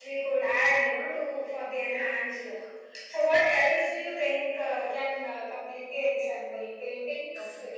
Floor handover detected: Yes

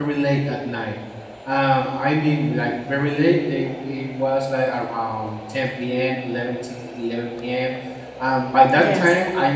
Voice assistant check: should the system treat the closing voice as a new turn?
No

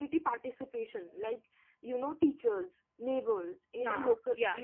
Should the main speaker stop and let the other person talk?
No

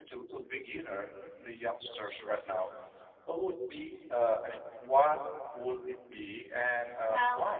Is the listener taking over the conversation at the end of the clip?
Yes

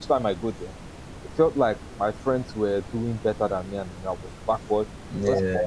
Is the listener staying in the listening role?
Yes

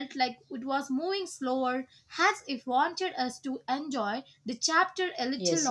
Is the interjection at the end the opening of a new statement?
Yes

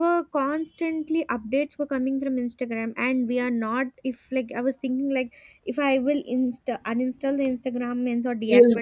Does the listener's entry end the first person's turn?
No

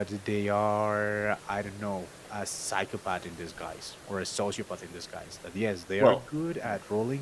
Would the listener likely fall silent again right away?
Yes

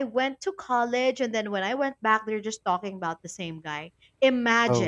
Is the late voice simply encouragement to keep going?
Yes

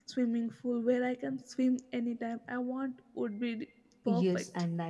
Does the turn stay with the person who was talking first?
No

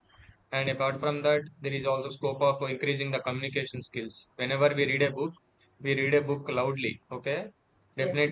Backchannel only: Yes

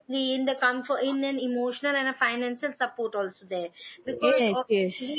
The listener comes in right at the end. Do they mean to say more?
No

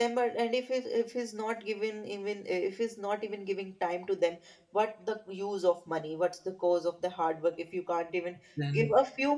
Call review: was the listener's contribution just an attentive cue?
Yes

